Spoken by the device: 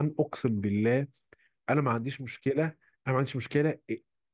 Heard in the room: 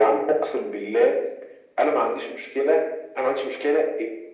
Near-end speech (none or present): none